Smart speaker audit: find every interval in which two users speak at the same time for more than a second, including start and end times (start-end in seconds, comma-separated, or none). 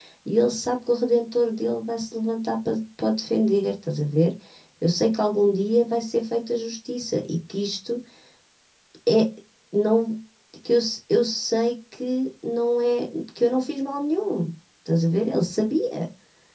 none